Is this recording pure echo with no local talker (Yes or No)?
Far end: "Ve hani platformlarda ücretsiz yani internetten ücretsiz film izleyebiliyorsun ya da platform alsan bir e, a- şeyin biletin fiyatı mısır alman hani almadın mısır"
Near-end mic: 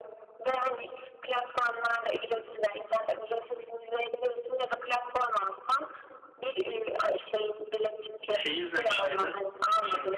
No